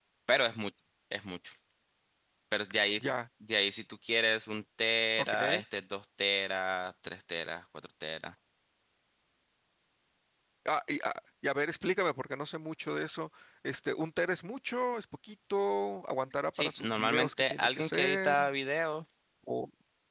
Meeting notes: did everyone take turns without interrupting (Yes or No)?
No